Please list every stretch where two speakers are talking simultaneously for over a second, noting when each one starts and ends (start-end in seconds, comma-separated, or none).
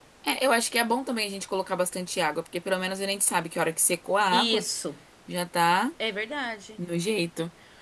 none